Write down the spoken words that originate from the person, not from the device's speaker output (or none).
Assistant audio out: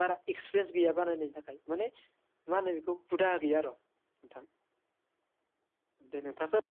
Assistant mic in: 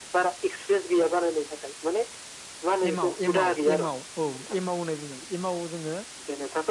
एमाव एमाव एमाव औ एमाव होननाय बुंनाय एमव जोङो